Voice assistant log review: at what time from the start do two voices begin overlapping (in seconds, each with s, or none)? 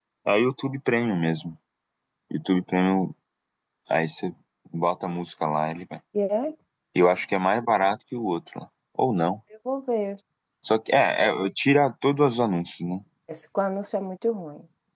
none